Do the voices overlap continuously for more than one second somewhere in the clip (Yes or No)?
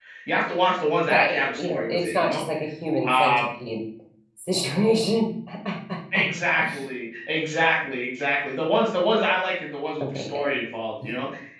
Yes